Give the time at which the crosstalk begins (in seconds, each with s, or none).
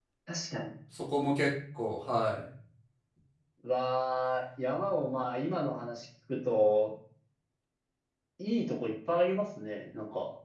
none